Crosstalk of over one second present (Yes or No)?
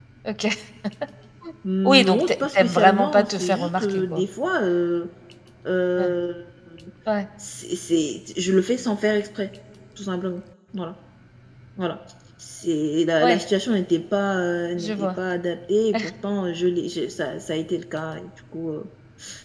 Yes